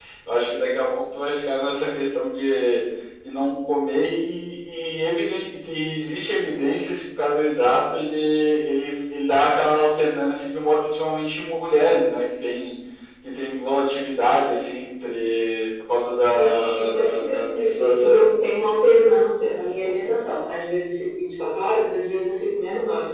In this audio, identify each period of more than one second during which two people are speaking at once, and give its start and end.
16.3-18.3

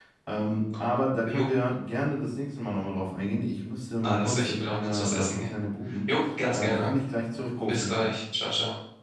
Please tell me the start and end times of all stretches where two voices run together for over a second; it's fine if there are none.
4.0-5.5

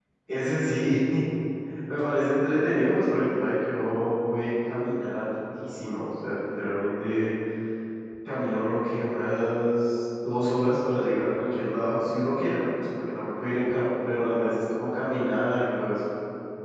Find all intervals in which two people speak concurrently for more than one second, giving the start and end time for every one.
none

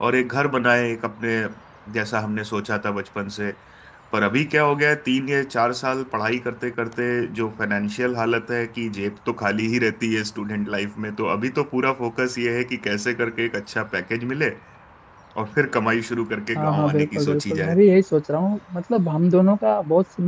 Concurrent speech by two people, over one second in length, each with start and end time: 16.6-17.8

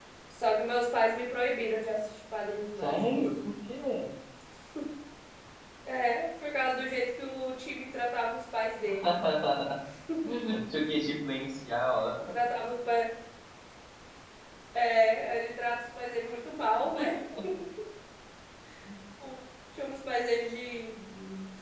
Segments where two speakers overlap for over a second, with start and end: none

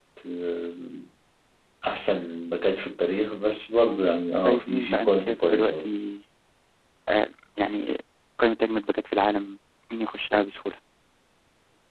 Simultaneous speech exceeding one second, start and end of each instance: 4.4-5.8

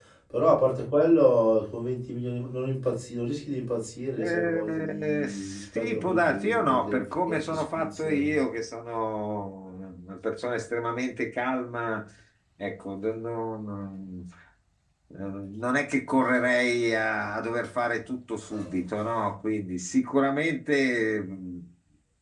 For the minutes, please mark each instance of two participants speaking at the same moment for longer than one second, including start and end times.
4.2-8.5

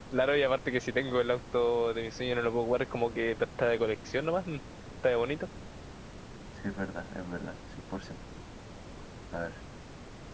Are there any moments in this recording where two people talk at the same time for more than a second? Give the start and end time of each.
none

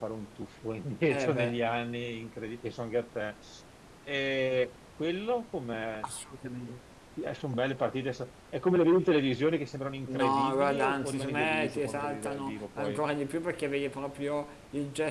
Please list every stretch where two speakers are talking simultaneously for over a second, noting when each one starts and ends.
10.1-13.0

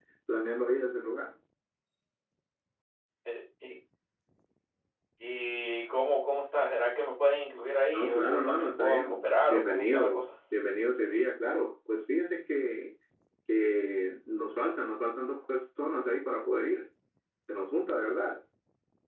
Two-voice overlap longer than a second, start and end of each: 7.9-10.2

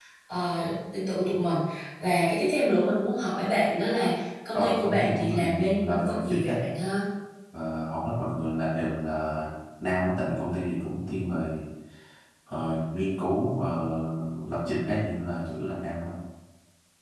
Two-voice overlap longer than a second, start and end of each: 4.5-6.5

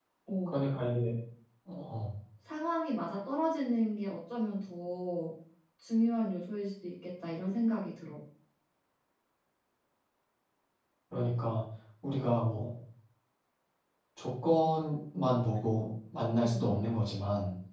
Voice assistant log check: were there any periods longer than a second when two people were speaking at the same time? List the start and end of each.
none

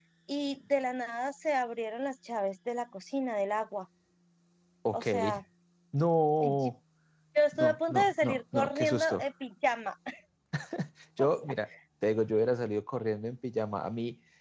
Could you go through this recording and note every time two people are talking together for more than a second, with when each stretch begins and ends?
7.5-9.2

